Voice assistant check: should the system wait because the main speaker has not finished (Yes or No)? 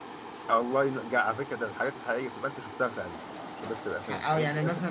No